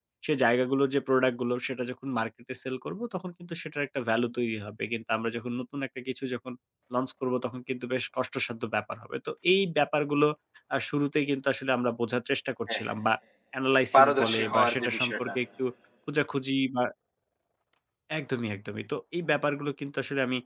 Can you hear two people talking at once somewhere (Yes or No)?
Yes